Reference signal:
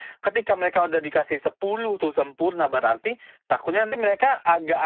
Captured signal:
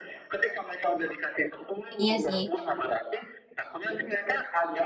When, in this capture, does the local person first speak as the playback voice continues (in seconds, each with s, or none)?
2.0 s